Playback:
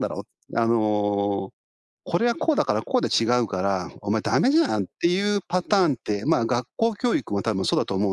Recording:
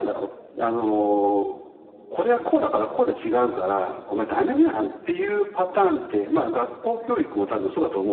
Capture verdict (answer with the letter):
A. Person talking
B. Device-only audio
B